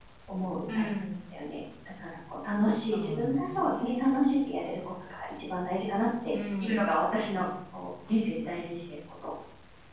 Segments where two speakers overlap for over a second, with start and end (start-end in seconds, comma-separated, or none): 2.8-4.4